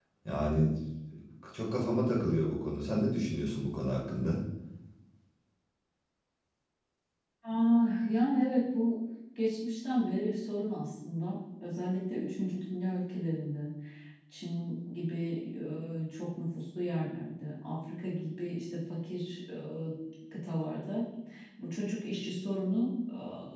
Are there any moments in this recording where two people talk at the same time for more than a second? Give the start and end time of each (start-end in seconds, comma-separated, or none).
none